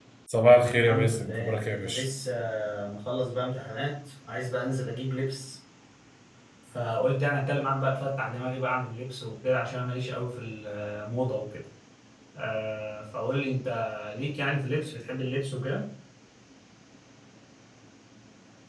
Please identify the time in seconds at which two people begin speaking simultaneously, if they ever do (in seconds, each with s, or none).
0.8 s